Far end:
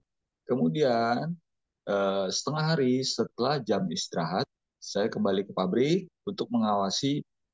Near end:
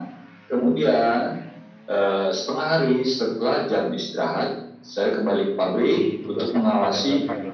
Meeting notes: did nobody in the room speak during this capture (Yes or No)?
No